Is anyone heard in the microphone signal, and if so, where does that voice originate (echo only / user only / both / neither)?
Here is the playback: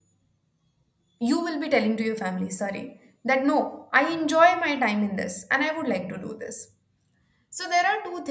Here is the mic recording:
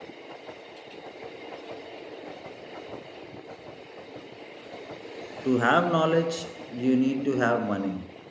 user only